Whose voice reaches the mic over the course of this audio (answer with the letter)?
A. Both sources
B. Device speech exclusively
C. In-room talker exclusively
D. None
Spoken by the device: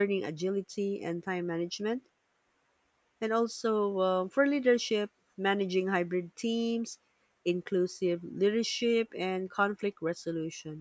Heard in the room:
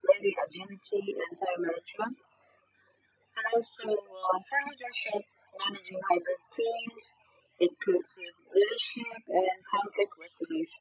B